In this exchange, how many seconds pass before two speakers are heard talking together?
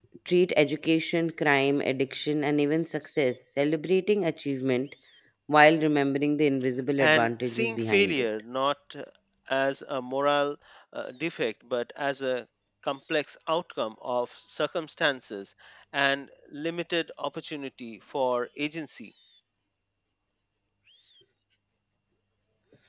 7.0 s

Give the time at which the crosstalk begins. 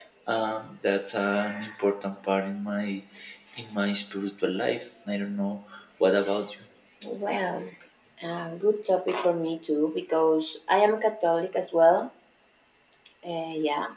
none

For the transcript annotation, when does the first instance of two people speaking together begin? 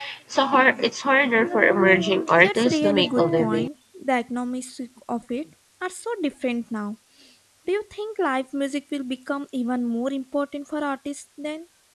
2.4 s

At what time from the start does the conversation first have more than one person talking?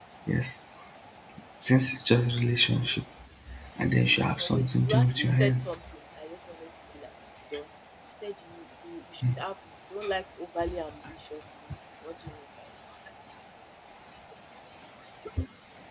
4.4 s

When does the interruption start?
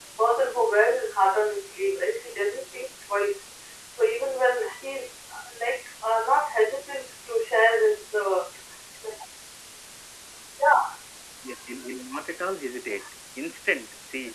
none

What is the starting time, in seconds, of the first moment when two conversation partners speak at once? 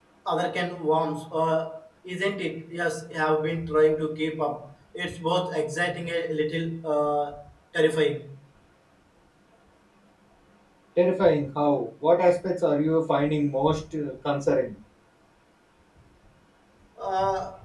none

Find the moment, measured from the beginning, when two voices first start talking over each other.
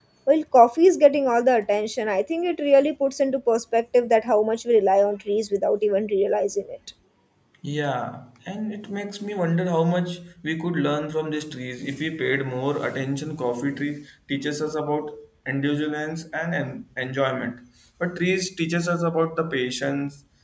none

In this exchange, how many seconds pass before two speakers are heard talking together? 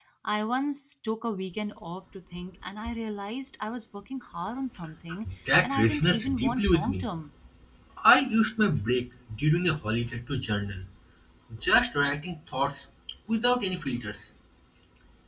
5.6 s

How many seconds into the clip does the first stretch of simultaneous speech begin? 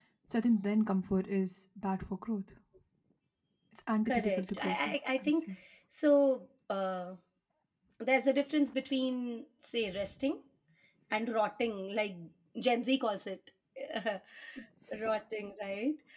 4.1 s

